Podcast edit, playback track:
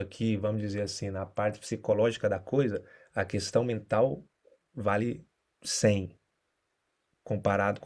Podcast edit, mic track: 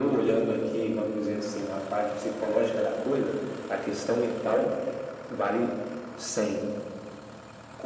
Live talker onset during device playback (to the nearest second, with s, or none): none